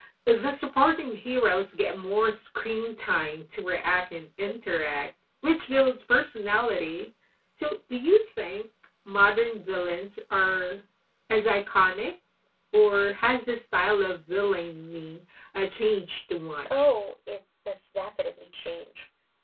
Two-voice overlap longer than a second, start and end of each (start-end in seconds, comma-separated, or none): none